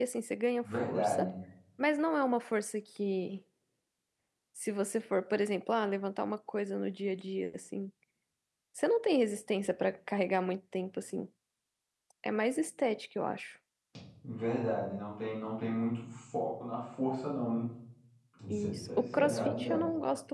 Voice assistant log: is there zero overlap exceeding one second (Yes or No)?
No